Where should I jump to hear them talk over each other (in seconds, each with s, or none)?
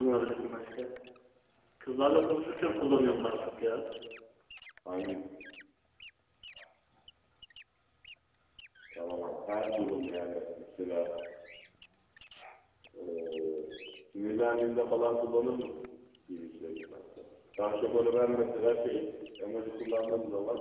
none